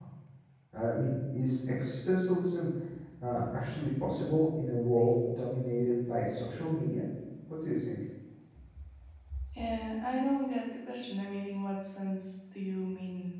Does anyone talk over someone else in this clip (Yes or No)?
No